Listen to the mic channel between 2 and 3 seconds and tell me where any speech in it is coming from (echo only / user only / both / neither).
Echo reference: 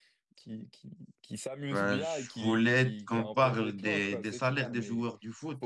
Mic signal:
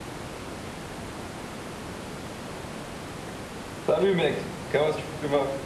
neither